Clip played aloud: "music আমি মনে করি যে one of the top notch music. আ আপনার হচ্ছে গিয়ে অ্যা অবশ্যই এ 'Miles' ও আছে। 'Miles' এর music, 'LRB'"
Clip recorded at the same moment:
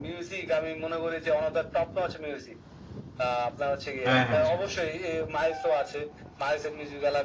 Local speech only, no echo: হ্যাঁ, হ্যাঁ, সেটাই।

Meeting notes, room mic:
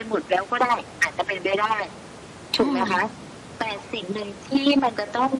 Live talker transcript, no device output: อา

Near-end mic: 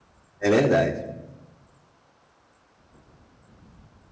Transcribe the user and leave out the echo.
É verdade.

